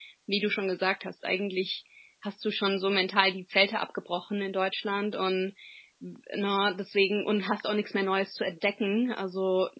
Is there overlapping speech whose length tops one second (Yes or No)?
No